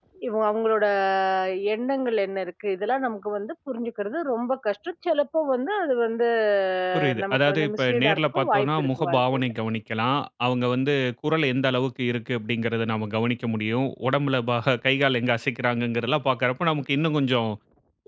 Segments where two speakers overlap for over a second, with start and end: 7.2-9.5

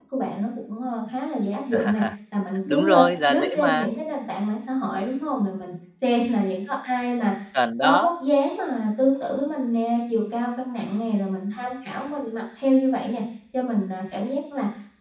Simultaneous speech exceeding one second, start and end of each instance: 2.7-3.9

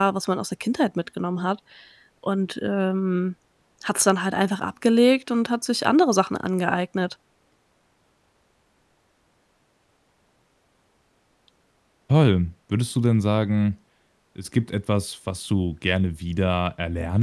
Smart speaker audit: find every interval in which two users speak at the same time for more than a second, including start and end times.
none

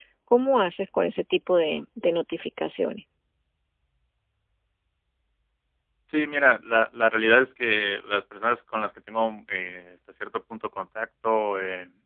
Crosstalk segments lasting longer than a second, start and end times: none

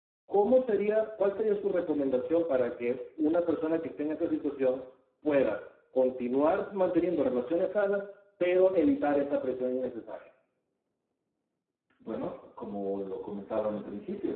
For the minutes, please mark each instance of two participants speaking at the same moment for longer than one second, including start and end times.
none

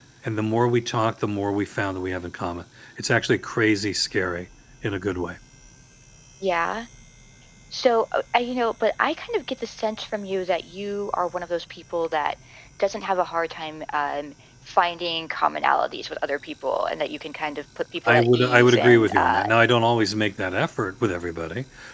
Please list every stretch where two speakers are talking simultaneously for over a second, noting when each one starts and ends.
18.1-19.5

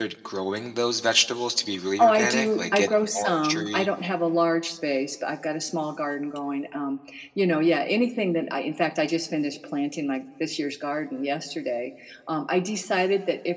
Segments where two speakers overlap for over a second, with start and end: 2.0-3.9

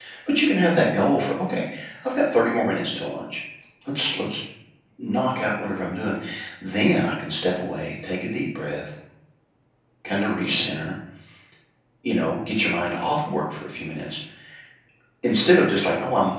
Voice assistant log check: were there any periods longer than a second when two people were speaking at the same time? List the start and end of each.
none

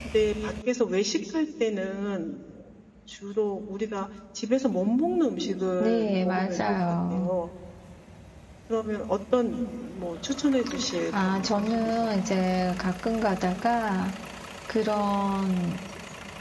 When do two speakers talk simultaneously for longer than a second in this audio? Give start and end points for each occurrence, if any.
5.8-7.3, 11.2-12.4

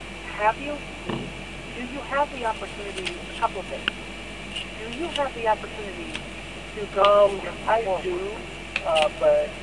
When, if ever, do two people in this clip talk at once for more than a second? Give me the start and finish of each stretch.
7.0-8.2

